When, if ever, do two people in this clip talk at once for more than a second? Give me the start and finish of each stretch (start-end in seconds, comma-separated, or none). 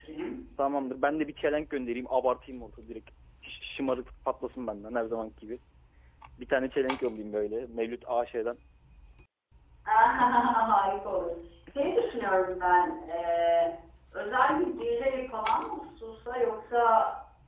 none